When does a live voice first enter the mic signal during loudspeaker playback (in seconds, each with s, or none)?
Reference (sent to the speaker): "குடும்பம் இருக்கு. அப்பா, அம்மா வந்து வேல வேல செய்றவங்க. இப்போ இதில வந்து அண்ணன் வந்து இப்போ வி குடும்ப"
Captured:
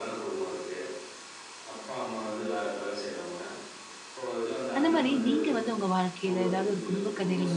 4.8 s